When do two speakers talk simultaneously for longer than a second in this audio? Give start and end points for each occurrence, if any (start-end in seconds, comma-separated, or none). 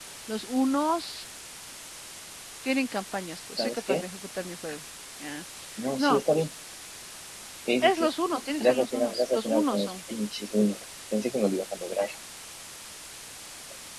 8.6-9.9